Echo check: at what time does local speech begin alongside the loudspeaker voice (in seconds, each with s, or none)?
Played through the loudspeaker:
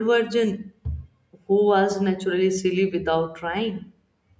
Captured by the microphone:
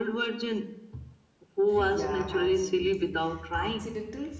1.8 s